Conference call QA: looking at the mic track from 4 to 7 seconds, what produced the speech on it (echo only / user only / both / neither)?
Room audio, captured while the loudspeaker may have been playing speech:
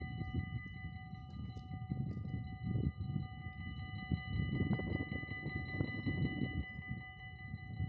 neither